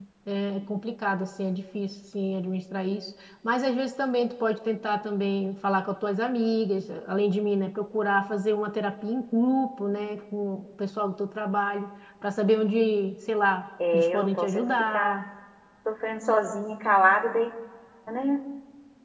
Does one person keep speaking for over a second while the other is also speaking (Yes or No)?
Yes